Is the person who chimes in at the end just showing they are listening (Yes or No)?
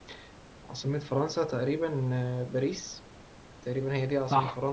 No